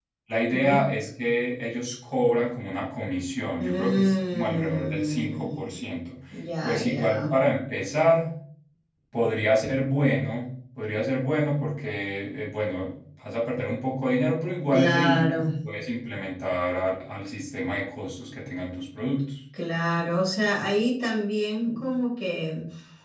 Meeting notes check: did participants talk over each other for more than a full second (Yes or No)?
Yes